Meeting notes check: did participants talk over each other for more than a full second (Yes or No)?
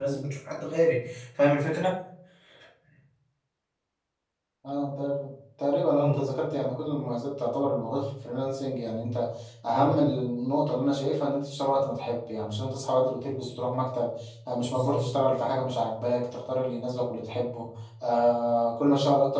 No